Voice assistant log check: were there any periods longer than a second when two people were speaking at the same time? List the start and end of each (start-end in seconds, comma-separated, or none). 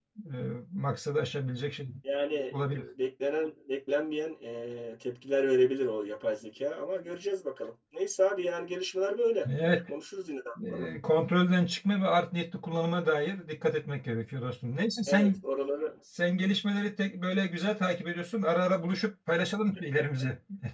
none